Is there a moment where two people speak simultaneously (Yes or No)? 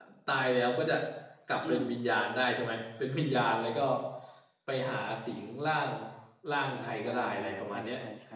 Yes